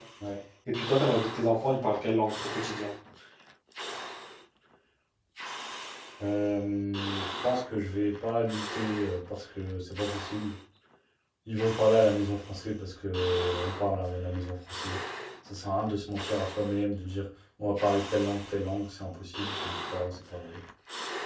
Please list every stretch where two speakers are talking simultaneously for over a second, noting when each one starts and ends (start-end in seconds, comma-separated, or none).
none